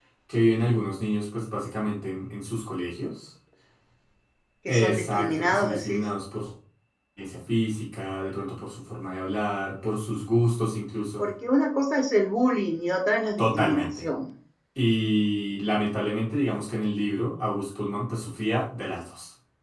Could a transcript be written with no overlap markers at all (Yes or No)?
No